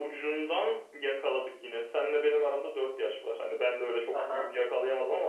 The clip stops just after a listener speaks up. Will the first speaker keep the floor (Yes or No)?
Yes